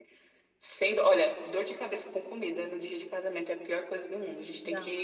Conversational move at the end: listening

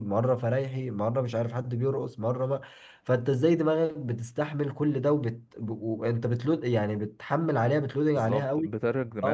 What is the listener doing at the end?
taking over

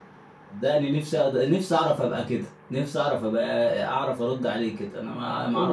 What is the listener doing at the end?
taking over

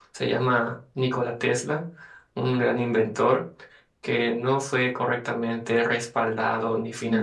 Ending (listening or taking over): listening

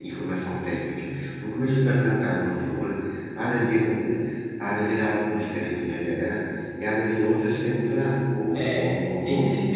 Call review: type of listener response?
taking over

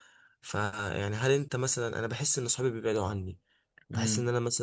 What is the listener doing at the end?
listening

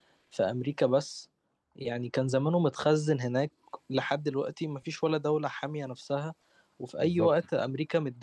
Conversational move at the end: listening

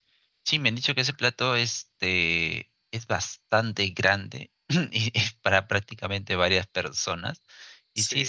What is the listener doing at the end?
listening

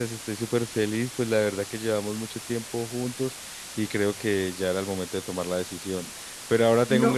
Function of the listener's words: listening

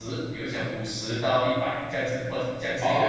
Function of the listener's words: taking over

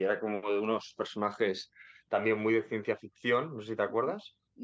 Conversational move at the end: taking over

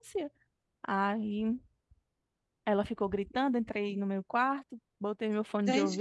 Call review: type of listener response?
taking over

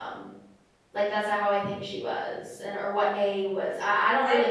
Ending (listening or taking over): taking over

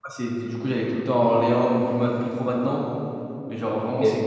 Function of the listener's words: listening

